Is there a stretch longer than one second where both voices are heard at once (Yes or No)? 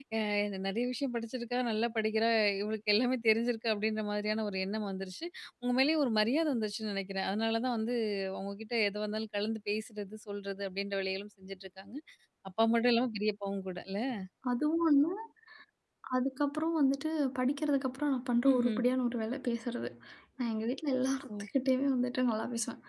No